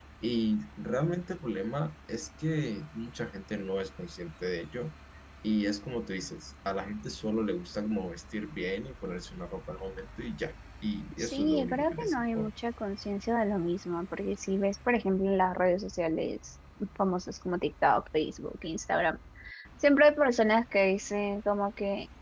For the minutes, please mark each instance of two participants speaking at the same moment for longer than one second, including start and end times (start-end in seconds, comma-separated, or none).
11.2-12.5